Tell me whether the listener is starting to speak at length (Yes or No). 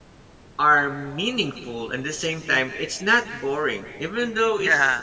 No